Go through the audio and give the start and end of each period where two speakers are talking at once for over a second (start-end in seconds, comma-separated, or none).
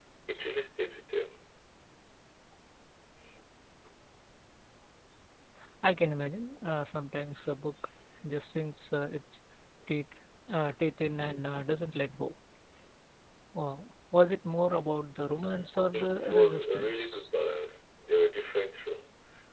15.9-17.3